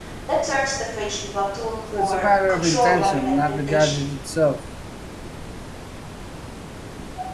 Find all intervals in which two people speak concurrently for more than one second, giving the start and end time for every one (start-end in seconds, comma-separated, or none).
2.0-4.0